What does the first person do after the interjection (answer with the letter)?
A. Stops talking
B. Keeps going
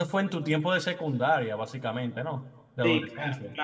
A